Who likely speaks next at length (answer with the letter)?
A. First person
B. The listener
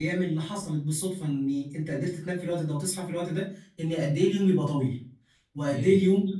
A